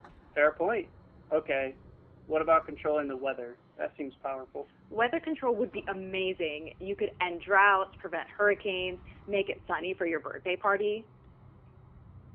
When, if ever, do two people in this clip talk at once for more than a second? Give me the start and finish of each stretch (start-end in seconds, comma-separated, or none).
none